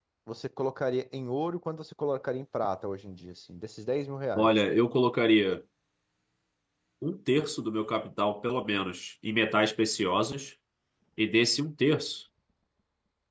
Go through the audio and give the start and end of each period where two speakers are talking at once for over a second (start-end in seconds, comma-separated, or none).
none